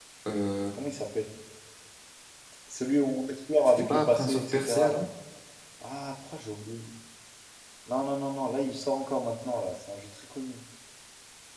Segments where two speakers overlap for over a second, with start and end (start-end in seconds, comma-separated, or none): 3.6-5.0